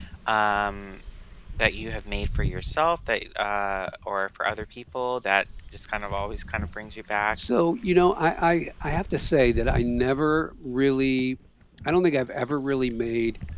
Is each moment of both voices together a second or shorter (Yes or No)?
Yes